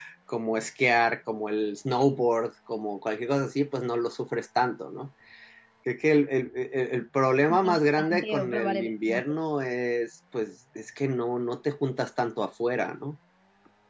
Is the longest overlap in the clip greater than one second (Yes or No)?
Yes